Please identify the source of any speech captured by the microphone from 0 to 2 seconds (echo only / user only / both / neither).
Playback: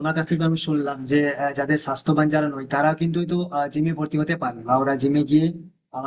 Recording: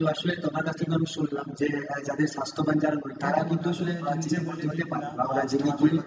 echo only